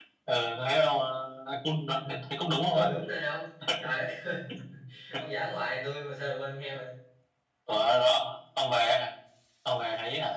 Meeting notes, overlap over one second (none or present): none